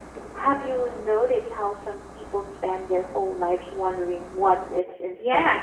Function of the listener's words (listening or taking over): taking over